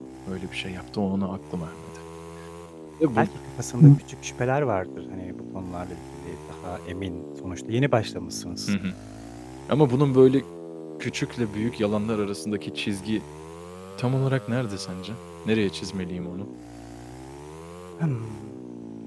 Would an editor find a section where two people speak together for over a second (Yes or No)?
No